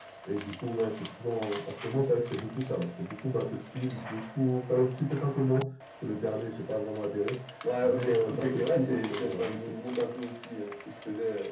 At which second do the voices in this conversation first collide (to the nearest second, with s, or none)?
8 s